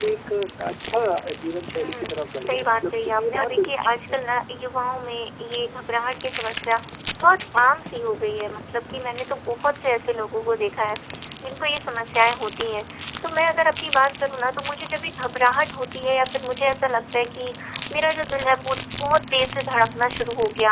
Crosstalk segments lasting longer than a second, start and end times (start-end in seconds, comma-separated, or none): 2.5-4.3